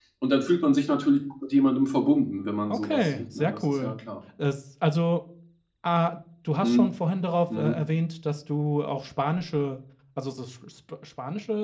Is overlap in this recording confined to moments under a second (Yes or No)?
No